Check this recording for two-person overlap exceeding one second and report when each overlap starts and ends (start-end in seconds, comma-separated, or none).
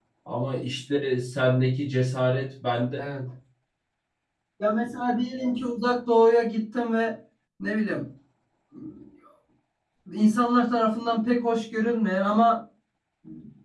none